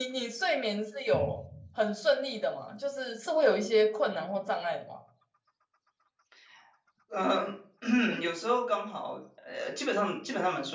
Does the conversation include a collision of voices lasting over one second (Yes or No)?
No